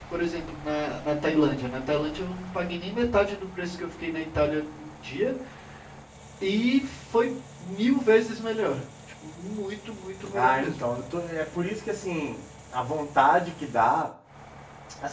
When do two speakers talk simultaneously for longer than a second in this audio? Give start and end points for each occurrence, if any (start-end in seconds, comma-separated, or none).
none